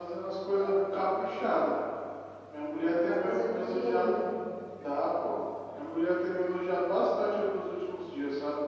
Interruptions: present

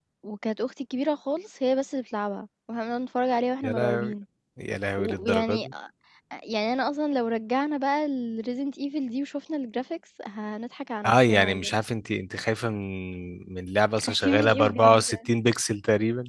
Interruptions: present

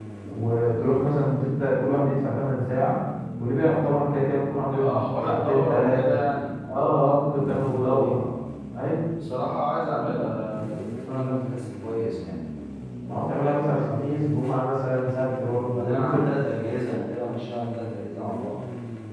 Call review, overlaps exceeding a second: present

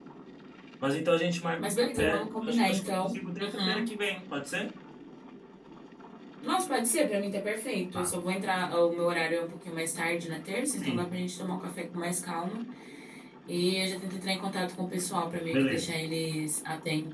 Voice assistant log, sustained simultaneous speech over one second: present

